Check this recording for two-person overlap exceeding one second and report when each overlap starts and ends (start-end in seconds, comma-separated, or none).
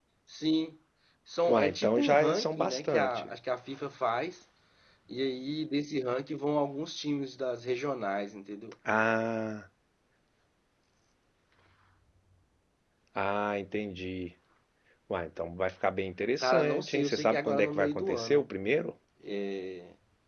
1.5-3.3, 16.4-18.5